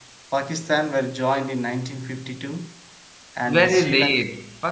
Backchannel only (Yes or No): No